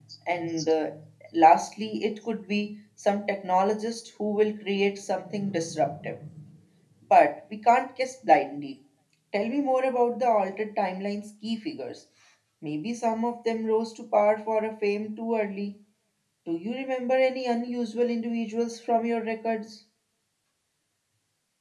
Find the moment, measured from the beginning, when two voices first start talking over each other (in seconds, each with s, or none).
none